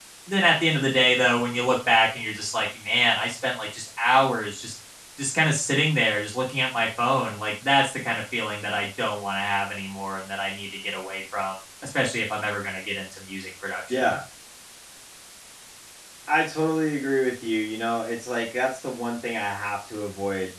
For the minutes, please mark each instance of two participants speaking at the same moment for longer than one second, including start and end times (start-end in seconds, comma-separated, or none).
none